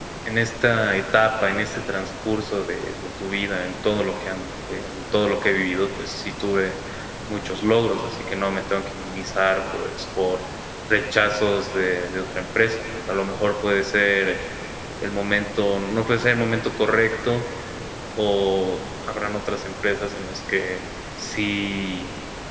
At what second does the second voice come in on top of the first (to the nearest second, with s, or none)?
none